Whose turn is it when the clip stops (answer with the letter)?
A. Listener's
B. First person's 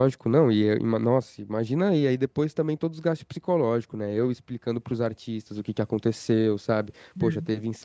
B